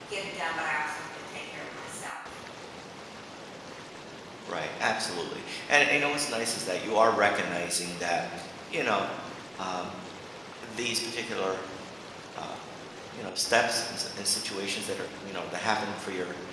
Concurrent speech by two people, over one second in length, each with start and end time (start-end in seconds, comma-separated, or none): none